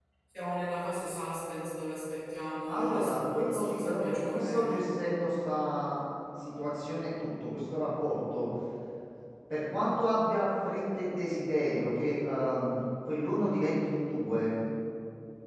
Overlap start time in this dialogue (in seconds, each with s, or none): 2.7 s